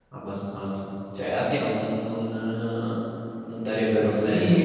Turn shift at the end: Yes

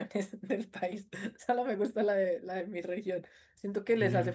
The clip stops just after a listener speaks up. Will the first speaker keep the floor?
Yes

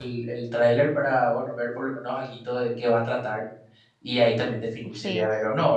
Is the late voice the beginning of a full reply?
No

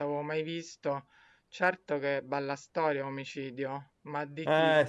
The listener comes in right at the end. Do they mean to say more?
Yes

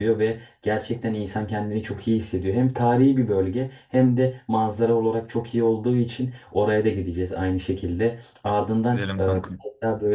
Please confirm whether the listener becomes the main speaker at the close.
No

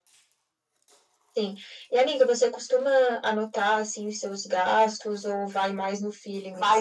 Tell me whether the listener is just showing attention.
No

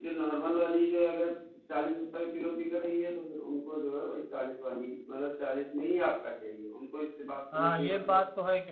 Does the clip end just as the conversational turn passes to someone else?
Yes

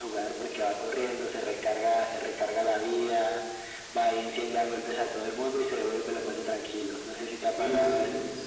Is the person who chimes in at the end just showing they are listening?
No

